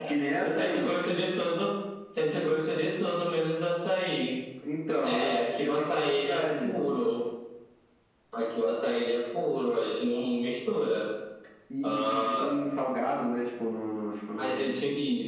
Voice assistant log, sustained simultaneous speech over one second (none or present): present